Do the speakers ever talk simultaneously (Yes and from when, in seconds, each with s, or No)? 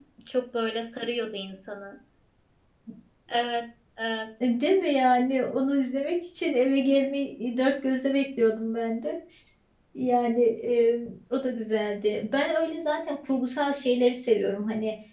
No